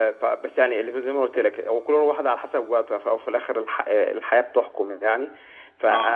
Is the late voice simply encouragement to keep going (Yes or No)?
Yes